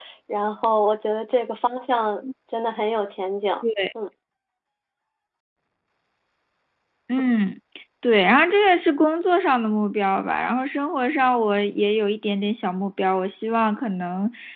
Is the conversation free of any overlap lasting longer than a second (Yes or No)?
Yes